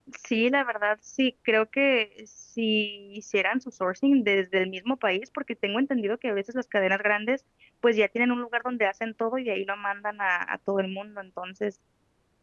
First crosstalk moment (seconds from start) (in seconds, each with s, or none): none